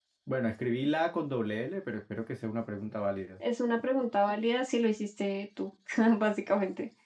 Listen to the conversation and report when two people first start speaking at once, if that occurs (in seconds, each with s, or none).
none